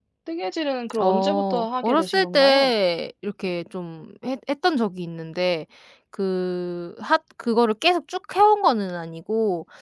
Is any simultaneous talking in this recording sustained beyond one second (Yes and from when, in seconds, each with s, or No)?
Yes, from 1.0 s